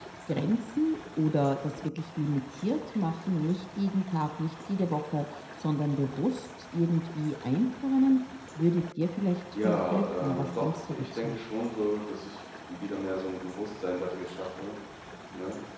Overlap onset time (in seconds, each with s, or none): 9.5 s